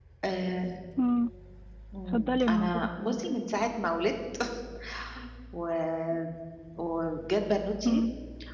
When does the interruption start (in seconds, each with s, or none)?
2.1 s